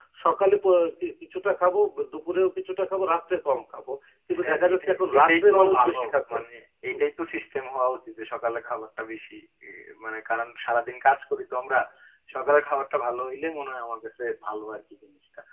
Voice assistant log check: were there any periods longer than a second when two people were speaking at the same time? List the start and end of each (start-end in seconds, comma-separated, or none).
4.4-6.4